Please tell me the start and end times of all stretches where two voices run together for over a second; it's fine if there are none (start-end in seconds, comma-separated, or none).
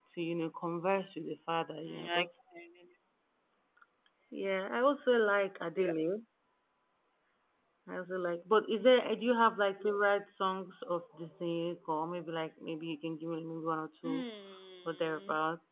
none